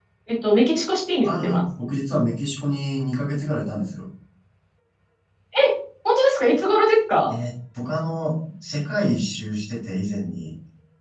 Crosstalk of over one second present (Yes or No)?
No